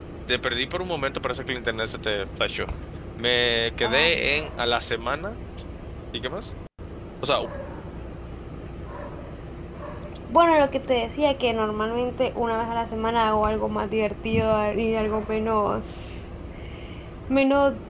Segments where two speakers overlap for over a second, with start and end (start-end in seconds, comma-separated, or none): none